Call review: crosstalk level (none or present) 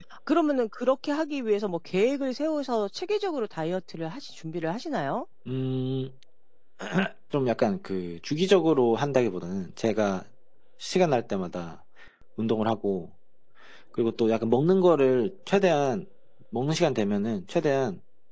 none